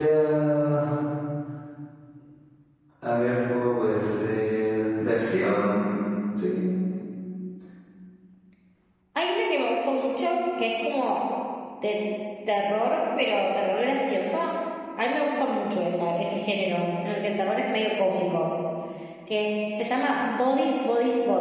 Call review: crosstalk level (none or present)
none